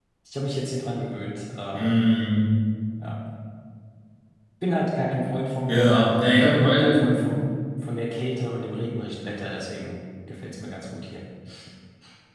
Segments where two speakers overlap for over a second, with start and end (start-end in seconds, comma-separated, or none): 5.7-7.1